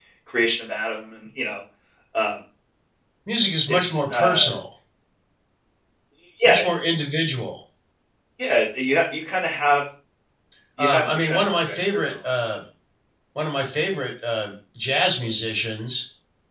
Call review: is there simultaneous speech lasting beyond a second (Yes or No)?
Yes